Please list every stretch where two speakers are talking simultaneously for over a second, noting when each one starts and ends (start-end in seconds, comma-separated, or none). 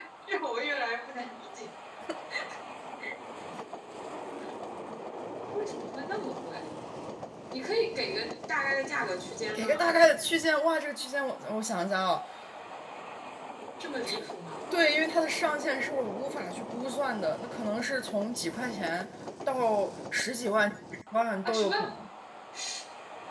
none